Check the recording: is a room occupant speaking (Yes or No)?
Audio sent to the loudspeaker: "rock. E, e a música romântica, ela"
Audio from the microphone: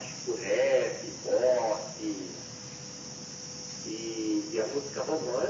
No